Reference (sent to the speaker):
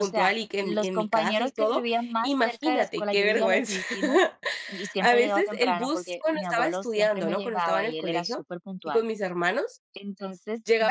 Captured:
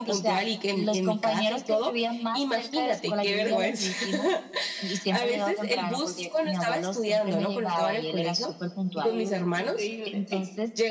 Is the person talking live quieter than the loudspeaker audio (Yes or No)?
Yes